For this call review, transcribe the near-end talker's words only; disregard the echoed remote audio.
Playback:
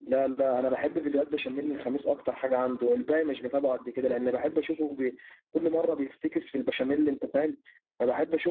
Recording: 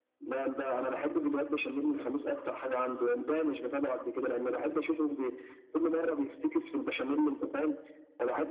none

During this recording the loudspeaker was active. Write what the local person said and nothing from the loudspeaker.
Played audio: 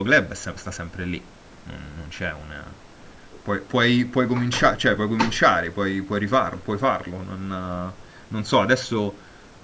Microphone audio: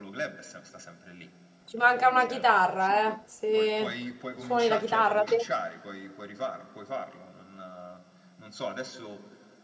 Ci manca una chitarra, eh? Se suoni la chitarra te?

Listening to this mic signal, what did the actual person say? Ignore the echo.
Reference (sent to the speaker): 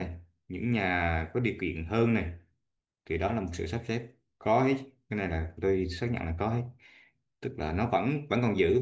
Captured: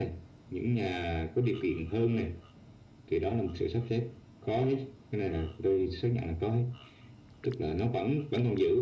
none

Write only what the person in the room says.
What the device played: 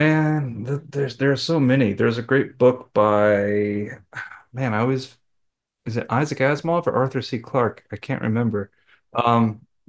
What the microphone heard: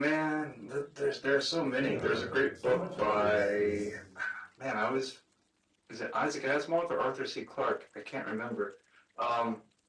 Yeah, but so much of it is is

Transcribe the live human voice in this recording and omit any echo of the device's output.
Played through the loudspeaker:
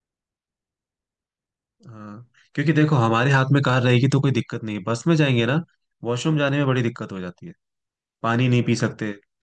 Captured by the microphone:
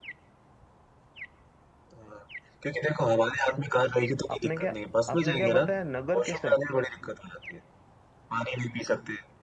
आपने क्या आपने क्या बताया नगर केसल

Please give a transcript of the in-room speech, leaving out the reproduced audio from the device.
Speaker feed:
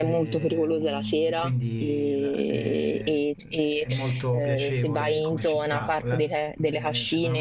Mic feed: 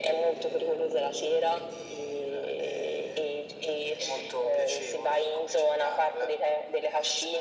none

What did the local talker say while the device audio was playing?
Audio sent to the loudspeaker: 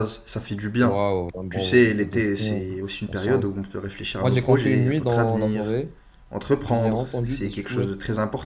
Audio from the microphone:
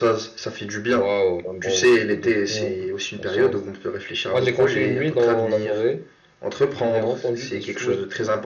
none

